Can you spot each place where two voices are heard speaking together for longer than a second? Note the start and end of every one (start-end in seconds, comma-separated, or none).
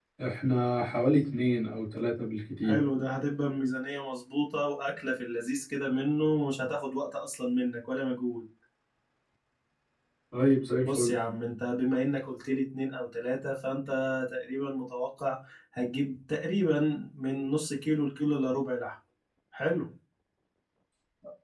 none